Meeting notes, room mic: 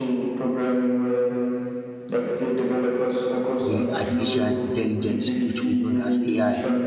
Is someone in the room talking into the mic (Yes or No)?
Yes